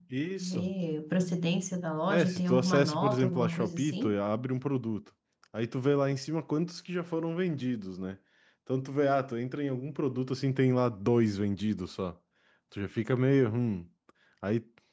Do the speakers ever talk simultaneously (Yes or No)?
Yes